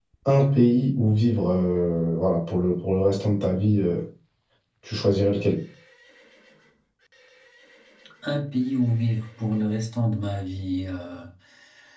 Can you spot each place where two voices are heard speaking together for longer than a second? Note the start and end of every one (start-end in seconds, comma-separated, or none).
none